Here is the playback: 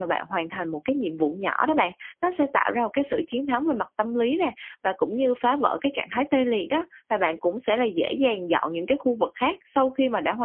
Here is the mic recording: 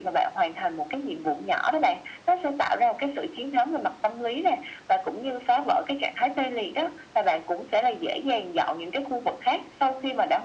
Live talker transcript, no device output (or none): none